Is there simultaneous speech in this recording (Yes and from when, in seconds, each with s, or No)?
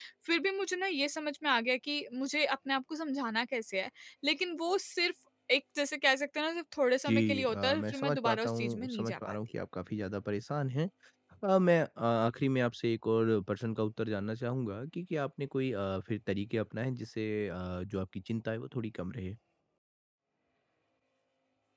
Yes, from 7.0 s